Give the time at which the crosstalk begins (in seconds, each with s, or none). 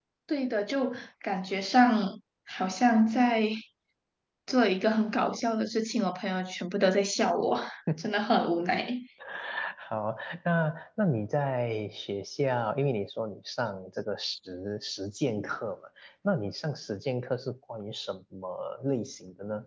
none